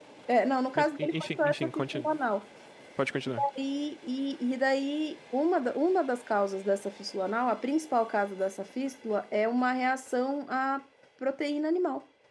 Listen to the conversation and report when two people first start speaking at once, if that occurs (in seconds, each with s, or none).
0.8 s